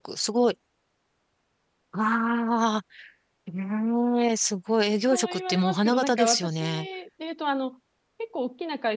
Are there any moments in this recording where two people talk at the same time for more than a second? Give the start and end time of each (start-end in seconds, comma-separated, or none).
5.1-6.9